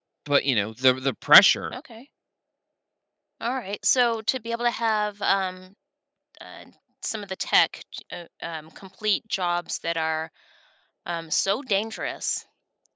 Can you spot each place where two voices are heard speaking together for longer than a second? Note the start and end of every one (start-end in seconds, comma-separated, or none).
none